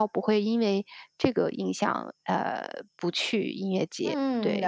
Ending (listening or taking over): taking over